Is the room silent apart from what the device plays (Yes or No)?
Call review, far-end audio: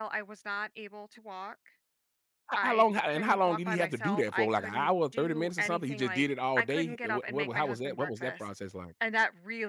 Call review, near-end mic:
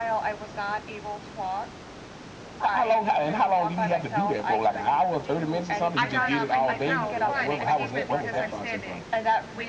No